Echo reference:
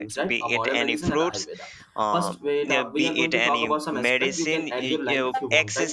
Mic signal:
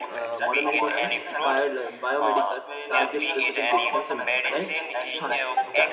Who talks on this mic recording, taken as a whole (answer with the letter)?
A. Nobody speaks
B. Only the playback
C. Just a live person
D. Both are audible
D